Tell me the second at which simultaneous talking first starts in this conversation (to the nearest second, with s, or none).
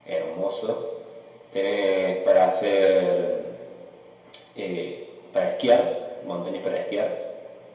none